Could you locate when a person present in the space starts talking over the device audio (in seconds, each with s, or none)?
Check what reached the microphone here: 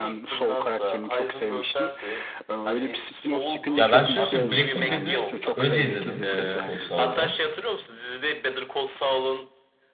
3.8 s